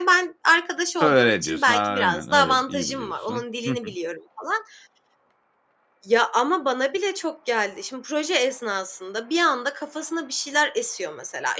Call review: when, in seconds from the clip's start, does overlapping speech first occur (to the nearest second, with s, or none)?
1 s